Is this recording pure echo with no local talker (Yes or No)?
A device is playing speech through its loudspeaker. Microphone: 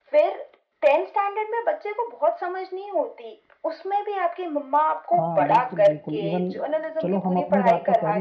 No